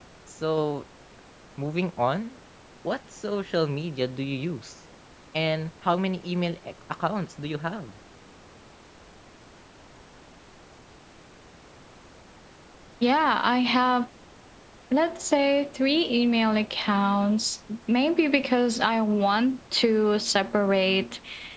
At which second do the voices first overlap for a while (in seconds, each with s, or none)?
none